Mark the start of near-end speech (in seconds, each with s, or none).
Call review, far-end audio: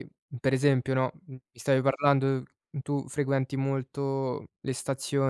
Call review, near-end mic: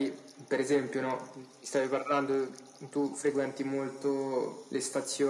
none